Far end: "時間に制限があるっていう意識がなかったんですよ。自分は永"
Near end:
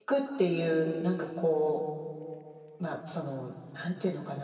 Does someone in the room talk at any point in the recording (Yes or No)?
Yes